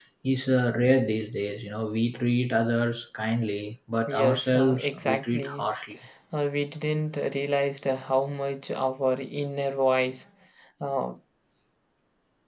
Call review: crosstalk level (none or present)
present